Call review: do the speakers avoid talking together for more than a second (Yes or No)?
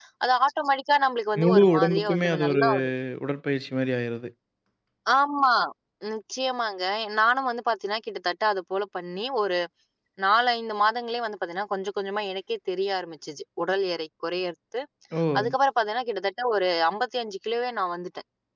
No